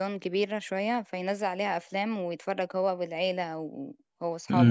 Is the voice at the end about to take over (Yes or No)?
Yes